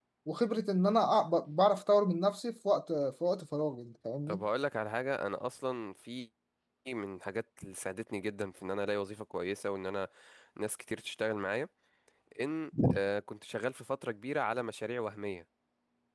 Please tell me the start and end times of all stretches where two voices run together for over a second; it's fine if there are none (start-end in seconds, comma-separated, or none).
none